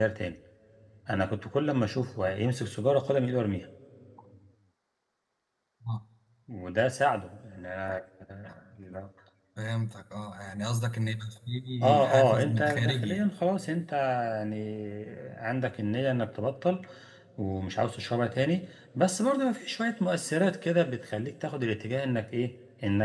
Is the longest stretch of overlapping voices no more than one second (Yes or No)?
No